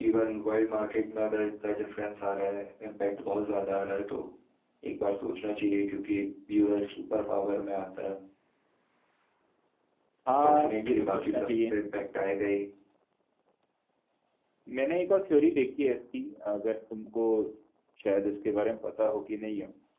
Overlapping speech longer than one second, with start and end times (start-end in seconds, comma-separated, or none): 10.4-11.8